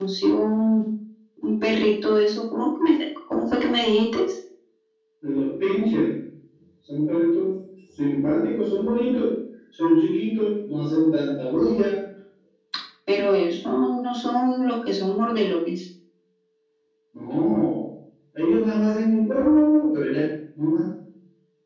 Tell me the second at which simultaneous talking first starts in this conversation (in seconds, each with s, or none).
none